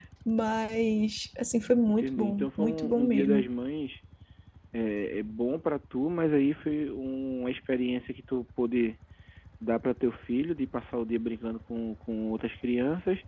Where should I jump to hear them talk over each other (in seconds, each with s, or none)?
1.9 s